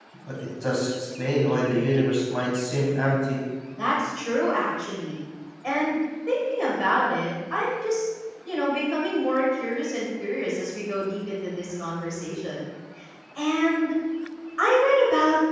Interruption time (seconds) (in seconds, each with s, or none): none